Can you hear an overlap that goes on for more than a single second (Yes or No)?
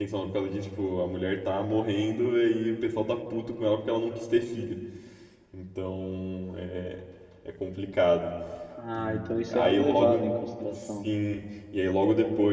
Yes